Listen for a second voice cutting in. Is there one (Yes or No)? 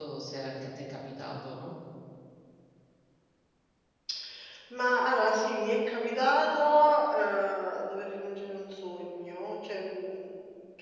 No